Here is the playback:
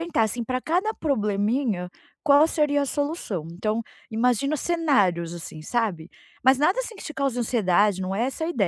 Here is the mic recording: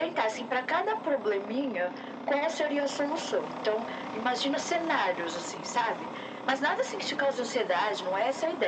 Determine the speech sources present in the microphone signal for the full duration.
echo only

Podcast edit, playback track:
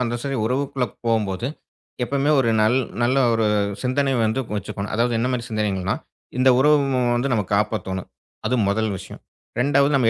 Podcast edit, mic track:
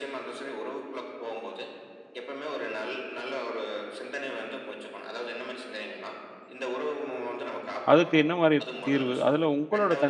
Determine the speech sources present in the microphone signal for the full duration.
both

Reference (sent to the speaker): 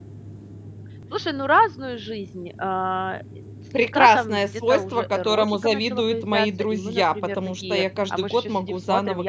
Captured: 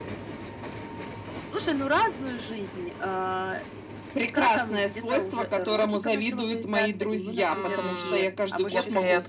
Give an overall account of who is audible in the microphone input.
both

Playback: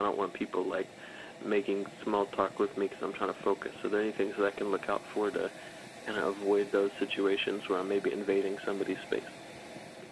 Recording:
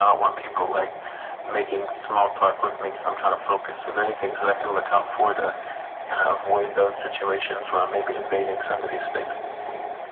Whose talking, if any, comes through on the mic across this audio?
echo only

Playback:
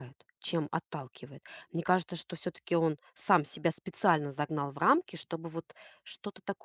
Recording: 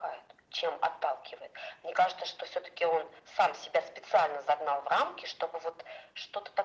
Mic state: echo only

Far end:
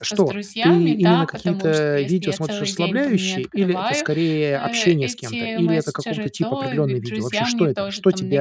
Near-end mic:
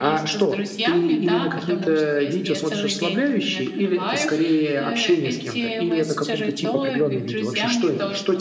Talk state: echo only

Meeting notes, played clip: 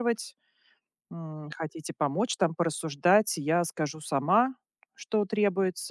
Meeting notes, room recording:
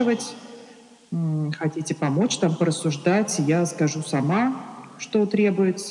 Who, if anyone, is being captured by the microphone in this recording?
echo only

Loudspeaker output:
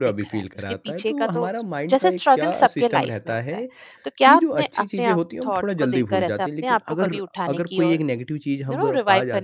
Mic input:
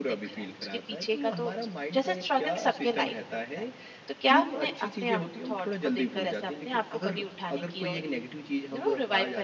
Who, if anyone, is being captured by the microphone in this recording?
echo only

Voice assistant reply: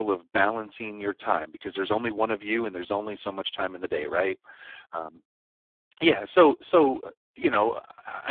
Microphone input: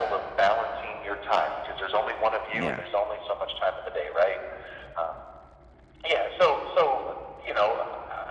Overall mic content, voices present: both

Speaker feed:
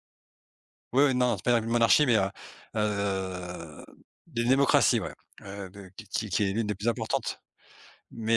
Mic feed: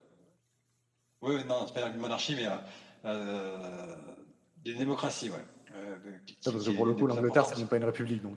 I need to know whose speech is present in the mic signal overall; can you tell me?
both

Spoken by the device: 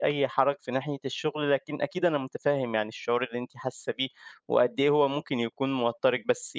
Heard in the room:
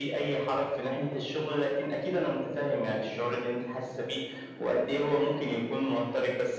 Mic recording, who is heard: echo only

